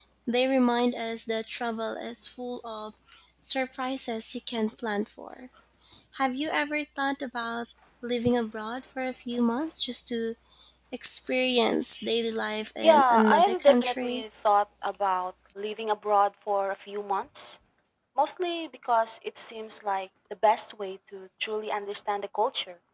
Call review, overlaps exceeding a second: present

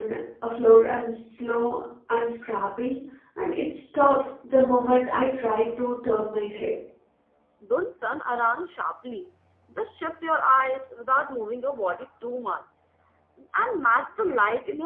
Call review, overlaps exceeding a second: none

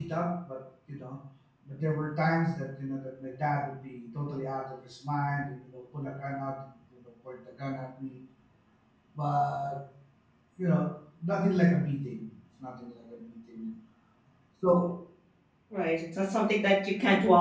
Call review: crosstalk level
none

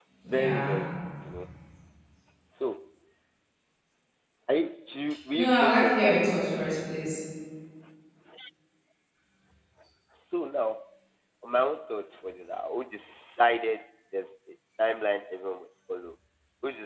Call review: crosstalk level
present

